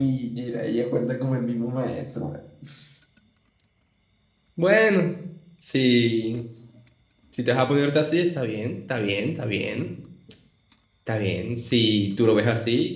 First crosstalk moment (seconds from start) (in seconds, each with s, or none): none